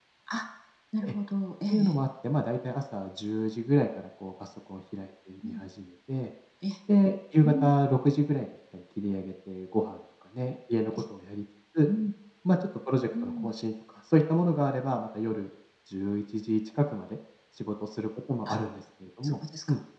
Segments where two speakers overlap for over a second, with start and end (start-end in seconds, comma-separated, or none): none